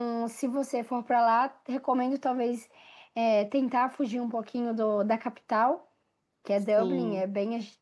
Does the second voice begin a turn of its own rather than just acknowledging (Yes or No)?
No